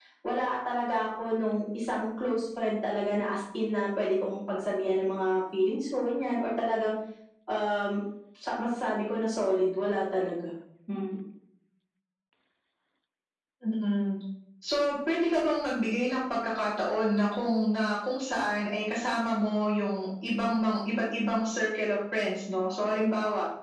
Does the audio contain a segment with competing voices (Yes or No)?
No